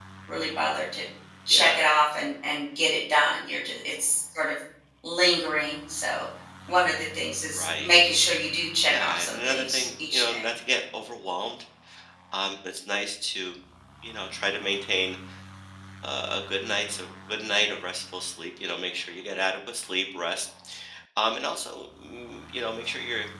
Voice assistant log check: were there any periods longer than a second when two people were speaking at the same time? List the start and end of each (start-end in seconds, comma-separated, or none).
8.8-10.5